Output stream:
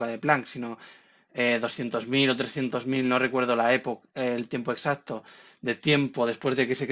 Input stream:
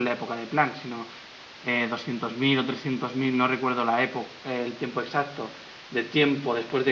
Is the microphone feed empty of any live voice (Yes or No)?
Yes